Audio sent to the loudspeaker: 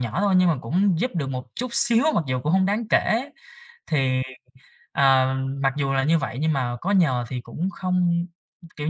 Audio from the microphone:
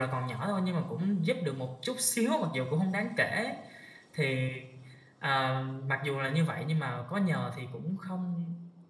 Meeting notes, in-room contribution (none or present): none